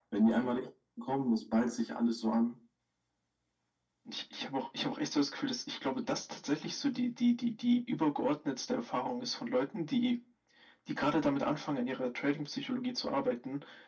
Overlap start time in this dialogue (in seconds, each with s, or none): none